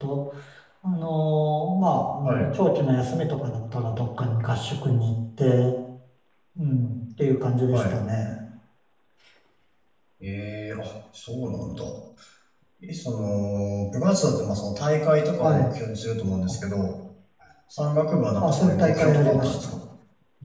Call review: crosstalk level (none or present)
present